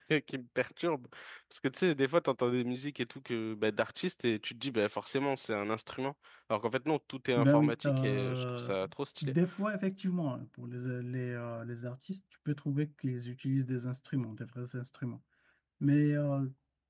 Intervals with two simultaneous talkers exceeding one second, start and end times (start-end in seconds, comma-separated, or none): 7.4-8.8